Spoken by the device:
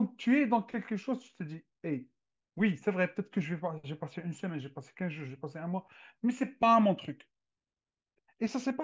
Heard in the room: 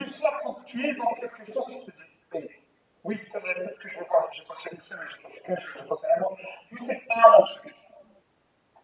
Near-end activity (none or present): none